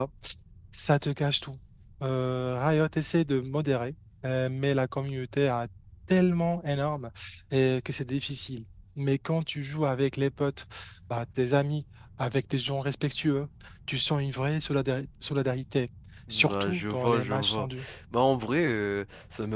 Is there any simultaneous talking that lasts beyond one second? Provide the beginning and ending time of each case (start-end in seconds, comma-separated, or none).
16.3-17.7